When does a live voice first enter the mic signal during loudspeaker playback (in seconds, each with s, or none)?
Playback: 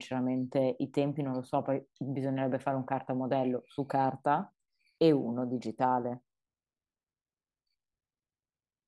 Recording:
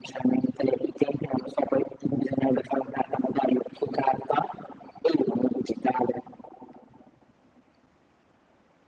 none